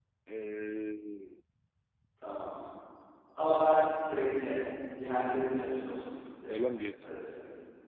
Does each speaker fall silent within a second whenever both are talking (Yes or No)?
Yes